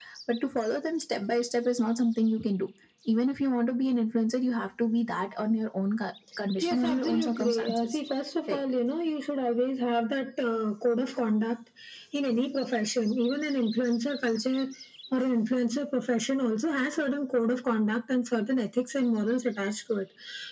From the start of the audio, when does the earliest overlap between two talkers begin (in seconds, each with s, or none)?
6.6 s